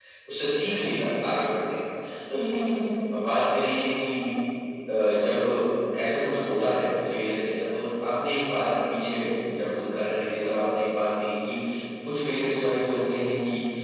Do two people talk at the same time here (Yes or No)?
No